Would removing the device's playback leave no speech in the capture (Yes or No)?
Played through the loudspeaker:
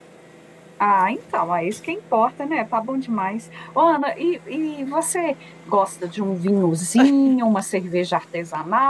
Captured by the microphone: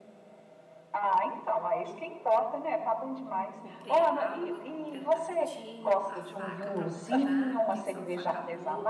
No